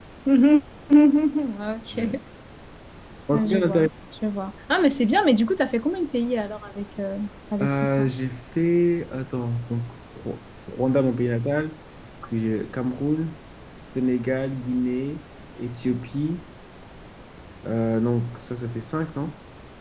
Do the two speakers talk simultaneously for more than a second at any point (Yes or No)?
No